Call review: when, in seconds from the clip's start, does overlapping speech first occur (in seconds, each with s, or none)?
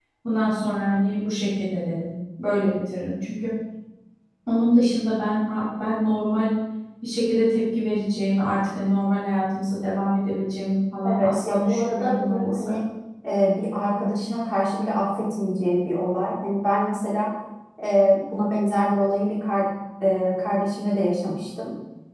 11.0 s